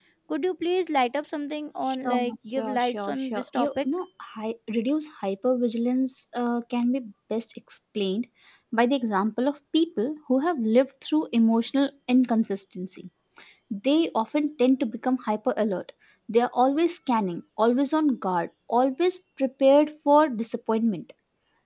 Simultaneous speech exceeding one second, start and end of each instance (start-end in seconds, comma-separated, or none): 1.9-3.9